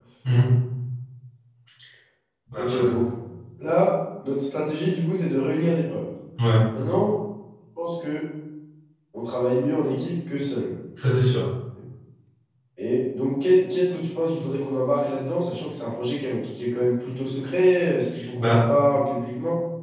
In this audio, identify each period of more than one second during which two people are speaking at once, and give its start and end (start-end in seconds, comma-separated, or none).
none